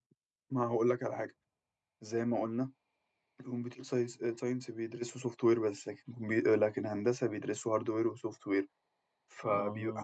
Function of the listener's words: listening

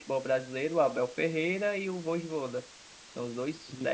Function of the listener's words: listening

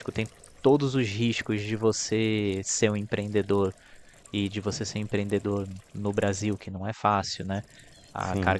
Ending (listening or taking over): listening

